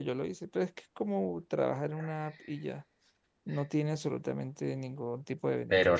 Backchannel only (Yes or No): No